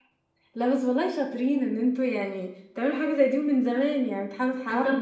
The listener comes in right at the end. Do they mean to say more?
Yes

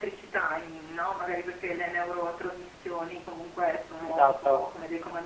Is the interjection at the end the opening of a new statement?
No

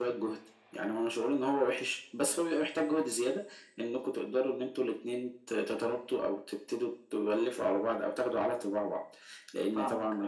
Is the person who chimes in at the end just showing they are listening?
Yes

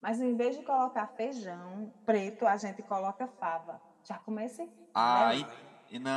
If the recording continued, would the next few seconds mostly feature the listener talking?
Yes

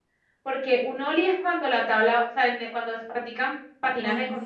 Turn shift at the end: No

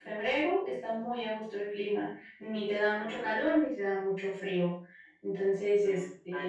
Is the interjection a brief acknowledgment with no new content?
No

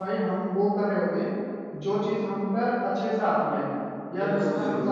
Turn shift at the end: Yes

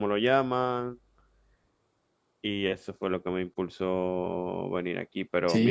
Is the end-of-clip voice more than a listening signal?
Yes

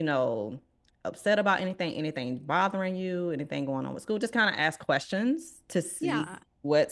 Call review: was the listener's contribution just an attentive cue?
Yes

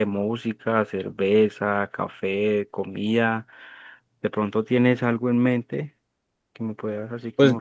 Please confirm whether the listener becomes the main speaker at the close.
Yes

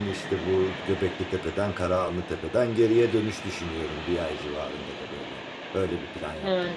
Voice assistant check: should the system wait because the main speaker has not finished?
No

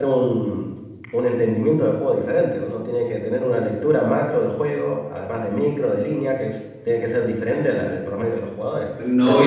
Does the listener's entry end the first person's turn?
Yes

